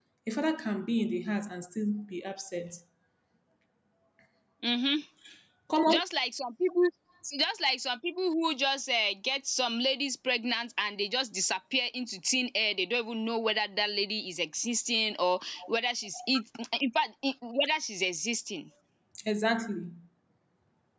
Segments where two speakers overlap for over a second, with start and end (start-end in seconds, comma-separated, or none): none